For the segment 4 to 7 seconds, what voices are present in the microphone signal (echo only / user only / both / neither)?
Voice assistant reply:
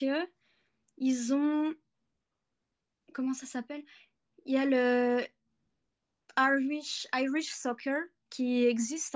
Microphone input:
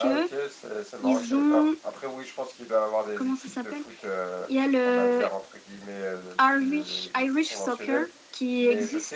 both